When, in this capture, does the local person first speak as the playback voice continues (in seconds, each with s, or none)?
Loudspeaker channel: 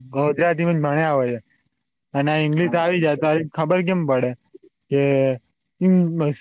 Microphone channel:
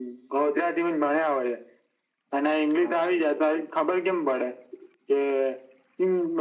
none